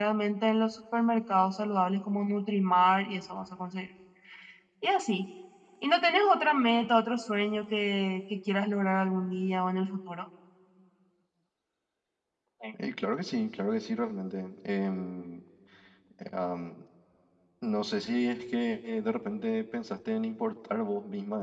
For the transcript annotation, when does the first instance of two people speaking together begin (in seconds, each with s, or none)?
none